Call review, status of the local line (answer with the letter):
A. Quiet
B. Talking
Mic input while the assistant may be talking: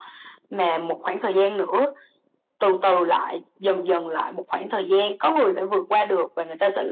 A